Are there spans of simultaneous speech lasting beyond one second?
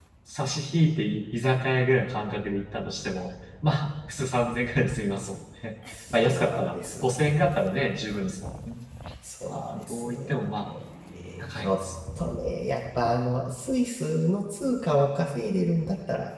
Yes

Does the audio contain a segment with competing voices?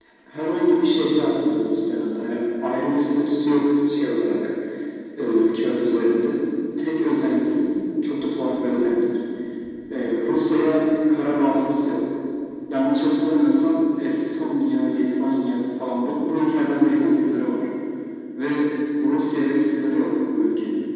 No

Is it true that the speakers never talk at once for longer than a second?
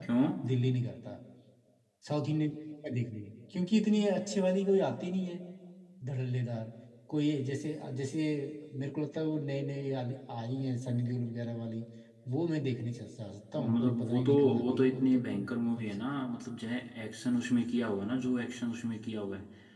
No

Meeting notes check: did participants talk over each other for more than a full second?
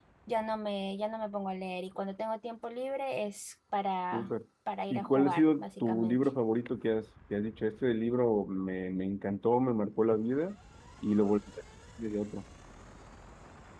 Yes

